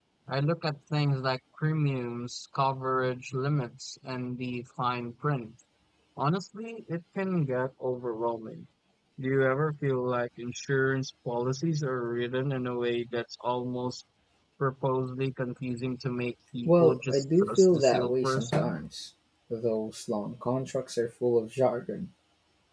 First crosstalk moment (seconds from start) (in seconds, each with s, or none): 16.6 s